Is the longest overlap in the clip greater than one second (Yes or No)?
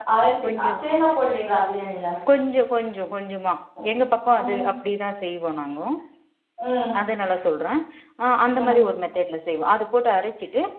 No